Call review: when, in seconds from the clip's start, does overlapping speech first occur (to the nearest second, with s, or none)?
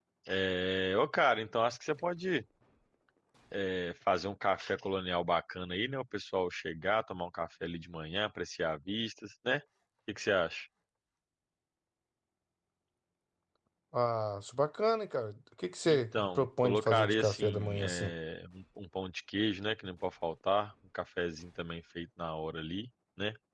16 s